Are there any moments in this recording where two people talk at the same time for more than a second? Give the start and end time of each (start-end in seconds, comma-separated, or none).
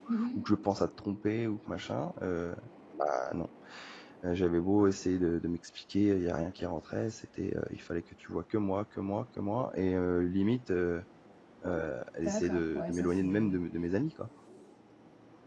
12.2-13.6